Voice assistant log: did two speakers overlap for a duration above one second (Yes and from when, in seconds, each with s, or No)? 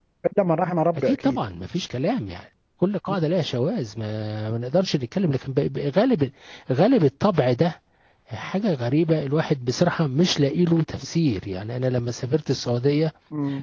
No